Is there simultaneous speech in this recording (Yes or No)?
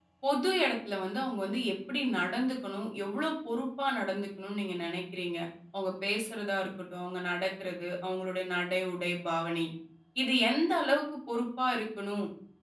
No